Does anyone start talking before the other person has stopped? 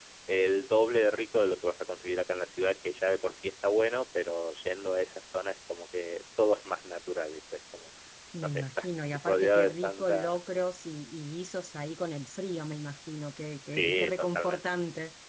Yes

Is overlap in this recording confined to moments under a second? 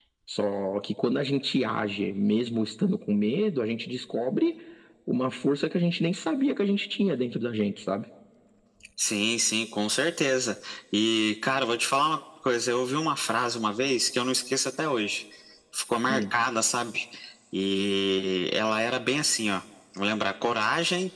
Yes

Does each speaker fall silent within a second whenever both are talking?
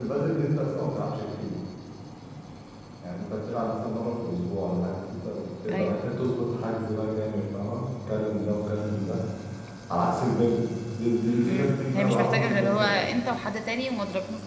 No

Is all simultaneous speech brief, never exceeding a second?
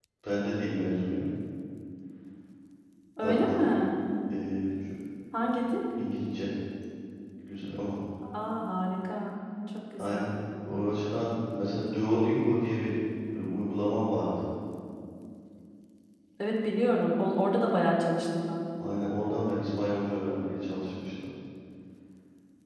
Yes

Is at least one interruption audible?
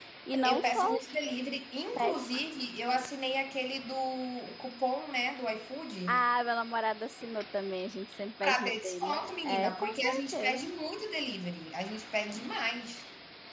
Yes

